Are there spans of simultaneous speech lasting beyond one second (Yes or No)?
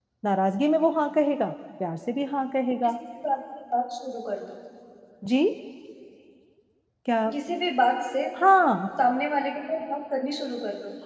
No